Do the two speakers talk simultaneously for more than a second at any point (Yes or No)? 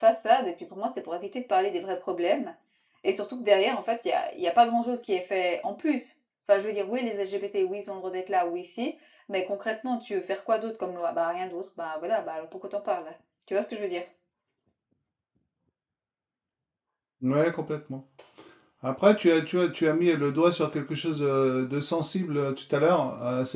No